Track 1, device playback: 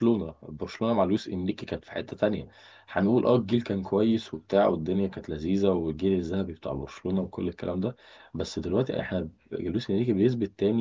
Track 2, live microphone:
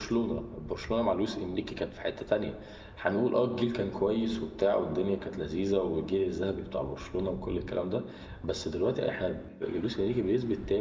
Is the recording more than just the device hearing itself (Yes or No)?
No